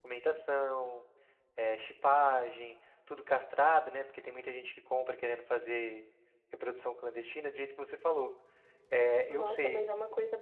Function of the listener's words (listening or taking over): taking over